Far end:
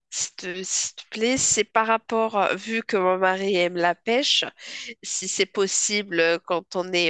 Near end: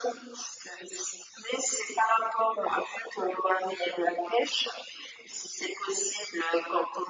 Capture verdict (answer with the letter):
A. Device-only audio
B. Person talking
A